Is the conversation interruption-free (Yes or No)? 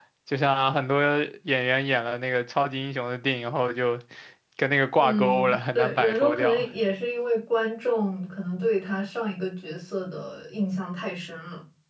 No